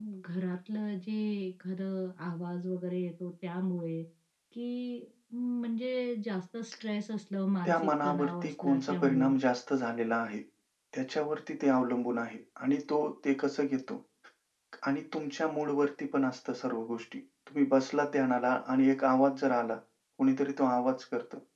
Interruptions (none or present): present